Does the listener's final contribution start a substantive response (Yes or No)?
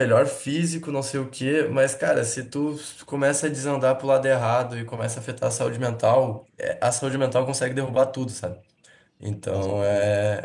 No